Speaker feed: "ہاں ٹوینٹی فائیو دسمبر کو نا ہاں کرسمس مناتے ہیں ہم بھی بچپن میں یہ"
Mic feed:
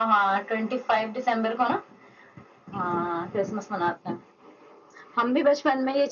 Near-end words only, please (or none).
none